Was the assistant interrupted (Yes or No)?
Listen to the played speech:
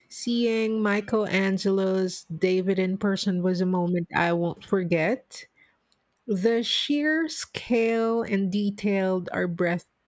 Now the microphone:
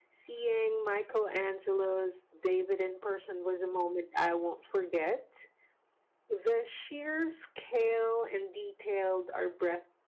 No